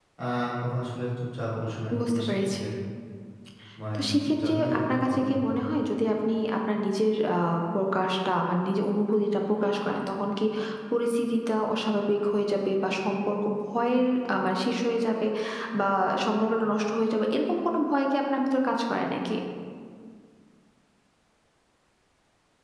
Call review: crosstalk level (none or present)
present